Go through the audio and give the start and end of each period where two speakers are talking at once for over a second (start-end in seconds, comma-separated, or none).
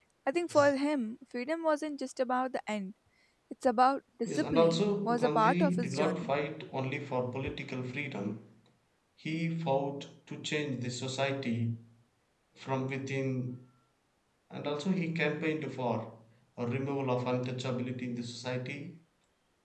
4.3-6.3